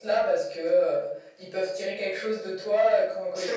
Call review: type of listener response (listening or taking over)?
listening